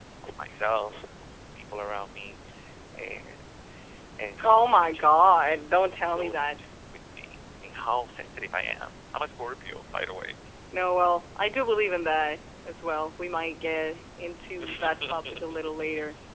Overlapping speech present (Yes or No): Yes